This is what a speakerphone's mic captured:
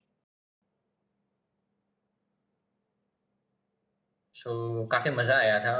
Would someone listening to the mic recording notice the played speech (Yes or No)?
No